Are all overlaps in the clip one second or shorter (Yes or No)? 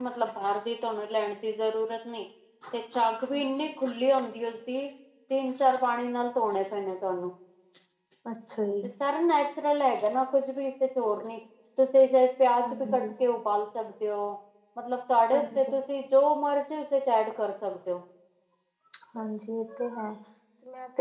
Yes